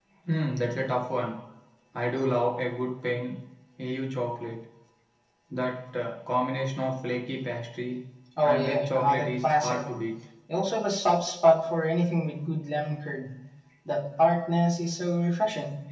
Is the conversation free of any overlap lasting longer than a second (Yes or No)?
No